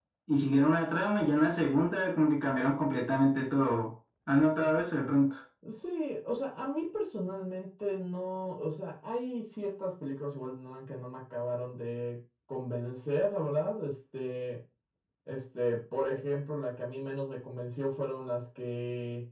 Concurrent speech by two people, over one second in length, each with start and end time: none

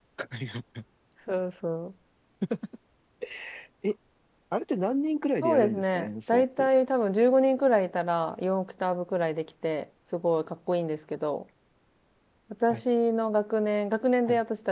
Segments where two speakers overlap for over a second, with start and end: 5.4-6.7

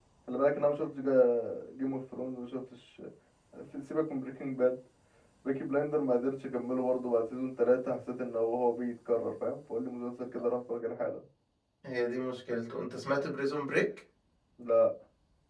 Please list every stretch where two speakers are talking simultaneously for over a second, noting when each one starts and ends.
none

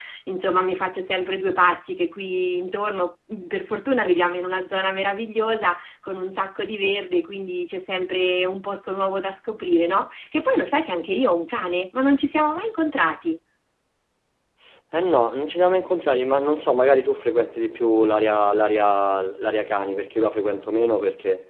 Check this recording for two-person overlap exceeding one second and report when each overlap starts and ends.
none

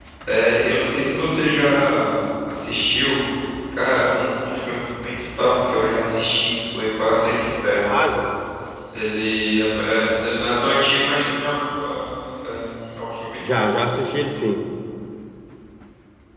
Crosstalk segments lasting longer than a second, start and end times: none

